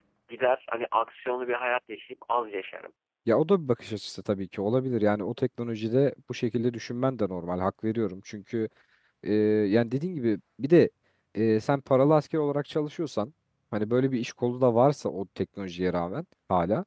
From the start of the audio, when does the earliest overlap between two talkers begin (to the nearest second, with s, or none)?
none